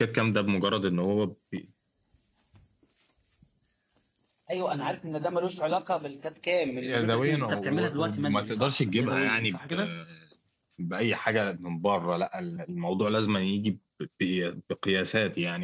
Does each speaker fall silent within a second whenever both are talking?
No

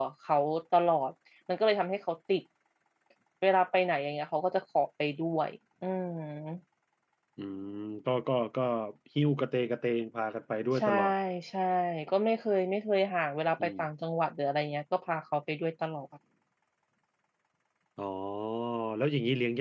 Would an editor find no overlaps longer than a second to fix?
Yes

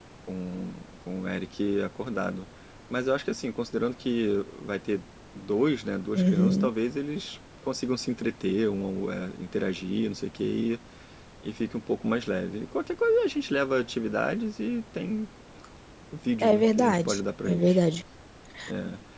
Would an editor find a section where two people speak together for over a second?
Yes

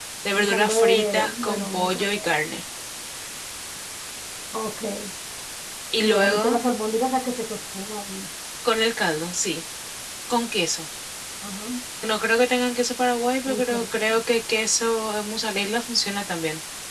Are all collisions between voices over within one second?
No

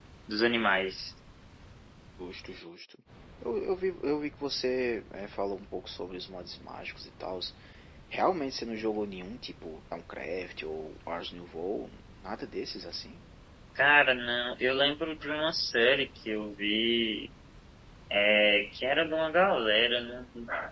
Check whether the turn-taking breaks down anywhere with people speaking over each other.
No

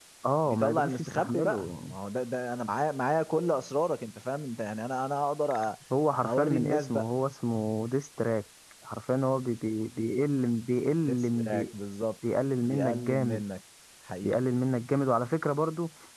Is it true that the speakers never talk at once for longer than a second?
No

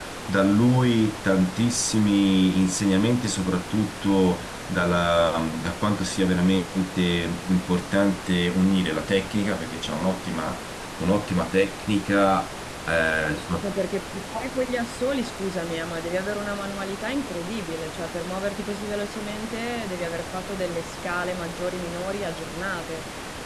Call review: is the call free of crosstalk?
Yes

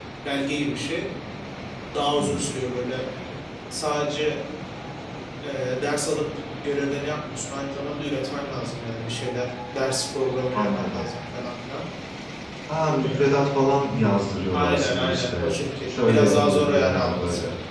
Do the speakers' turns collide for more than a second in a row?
Yes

